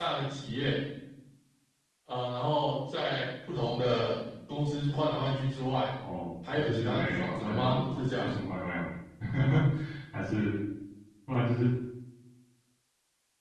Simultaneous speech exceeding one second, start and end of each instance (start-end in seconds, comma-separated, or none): 6.5-8.3